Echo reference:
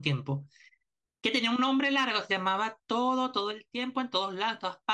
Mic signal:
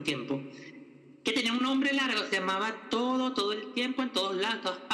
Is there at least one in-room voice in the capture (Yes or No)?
No